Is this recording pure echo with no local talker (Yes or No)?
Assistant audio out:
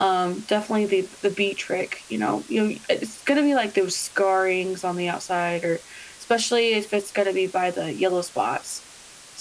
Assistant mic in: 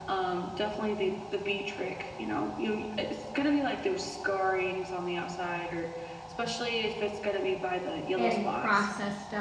No